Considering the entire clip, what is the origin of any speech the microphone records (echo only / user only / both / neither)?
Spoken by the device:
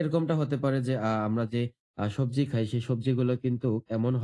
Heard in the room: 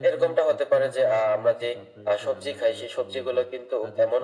both